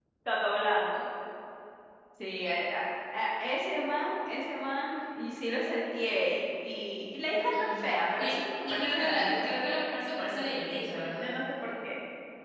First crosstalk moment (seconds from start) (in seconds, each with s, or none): 7.5 s